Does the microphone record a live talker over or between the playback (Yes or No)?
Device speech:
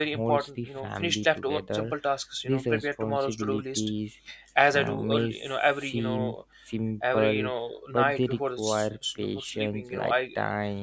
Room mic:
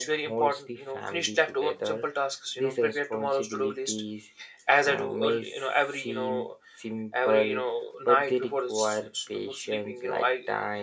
No